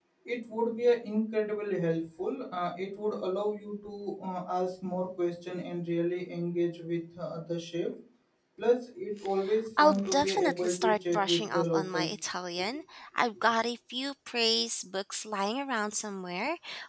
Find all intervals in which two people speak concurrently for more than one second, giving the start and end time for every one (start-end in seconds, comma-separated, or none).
9.8-12.1